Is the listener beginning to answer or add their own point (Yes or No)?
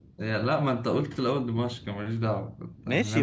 Yes